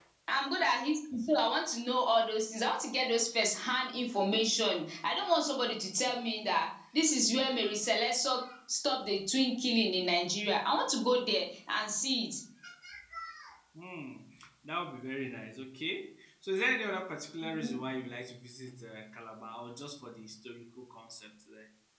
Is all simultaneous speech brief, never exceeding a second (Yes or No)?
Yes